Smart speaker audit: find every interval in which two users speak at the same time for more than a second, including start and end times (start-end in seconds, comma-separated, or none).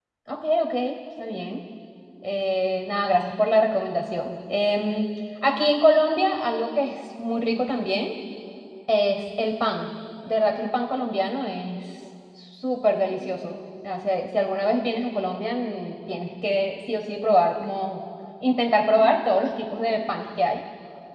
none